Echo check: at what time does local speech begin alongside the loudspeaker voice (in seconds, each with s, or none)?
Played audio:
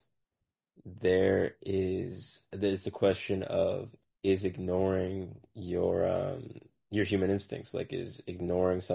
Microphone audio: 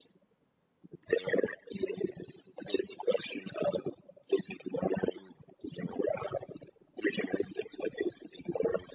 none